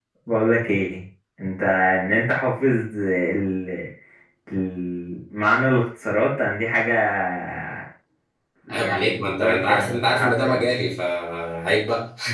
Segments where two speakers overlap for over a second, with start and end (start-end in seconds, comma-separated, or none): 8.7-10.6